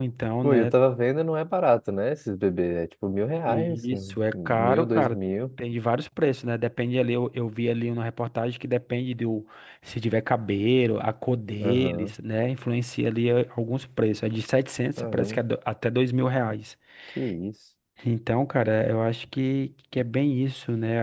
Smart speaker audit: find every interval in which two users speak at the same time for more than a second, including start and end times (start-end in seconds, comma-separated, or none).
3.5-5.2